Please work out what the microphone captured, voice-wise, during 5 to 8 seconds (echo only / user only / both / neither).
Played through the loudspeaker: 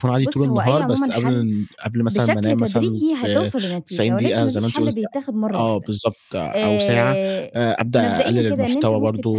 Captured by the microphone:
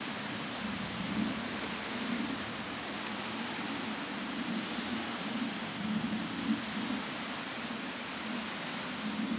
neither